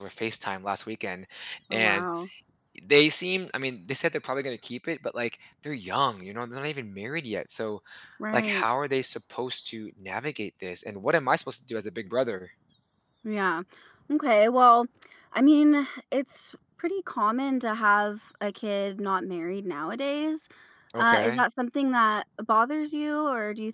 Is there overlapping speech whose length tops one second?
No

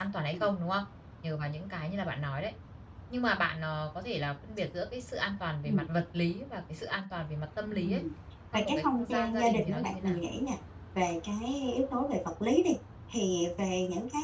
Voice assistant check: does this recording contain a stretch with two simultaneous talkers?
Yes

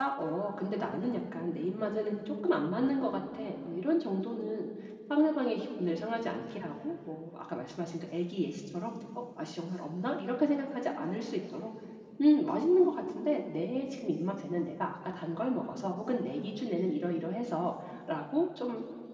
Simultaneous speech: No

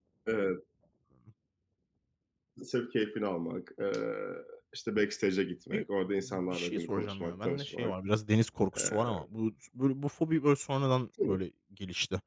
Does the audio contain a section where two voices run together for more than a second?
Yes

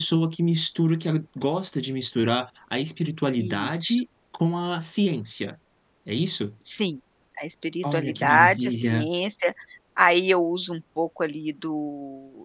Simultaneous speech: Yes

